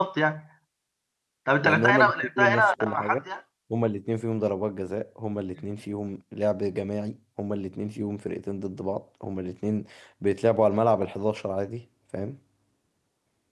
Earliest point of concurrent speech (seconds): 2 s

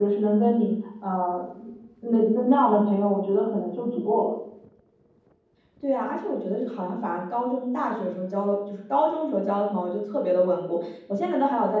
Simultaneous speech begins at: none

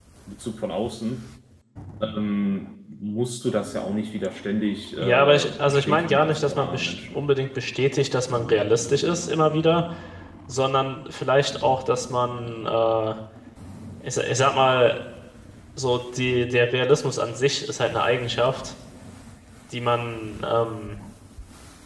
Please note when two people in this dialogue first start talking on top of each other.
5 s

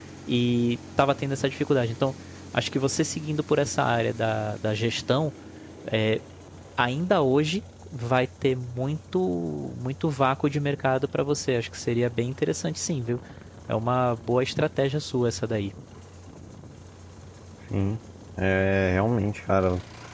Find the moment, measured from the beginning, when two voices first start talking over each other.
none

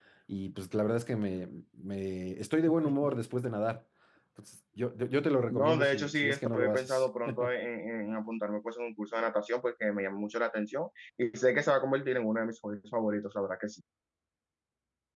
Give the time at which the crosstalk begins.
5 s

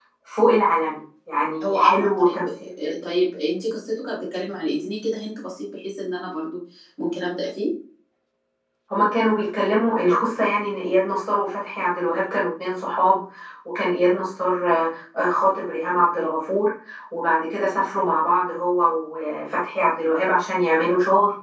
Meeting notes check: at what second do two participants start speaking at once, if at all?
2 s

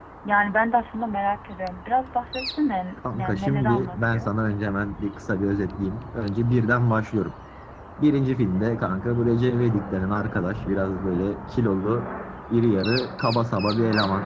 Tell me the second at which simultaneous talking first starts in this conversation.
3 s

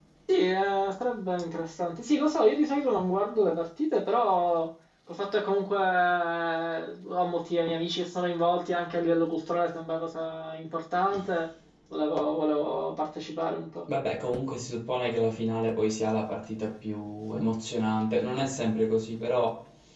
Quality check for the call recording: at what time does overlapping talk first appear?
none

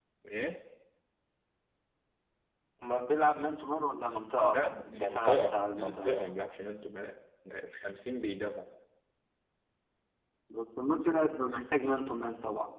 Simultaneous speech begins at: 4 s

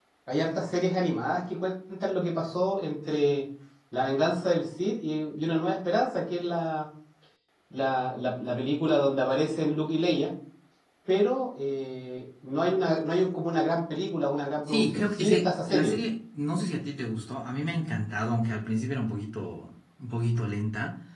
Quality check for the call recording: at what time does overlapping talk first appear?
15 s

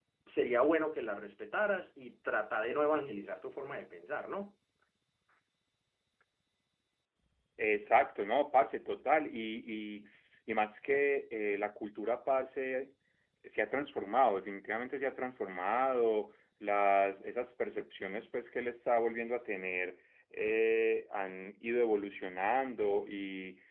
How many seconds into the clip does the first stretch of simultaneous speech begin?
none

